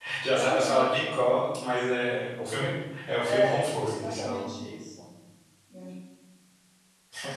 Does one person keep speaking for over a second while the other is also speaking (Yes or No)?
Yes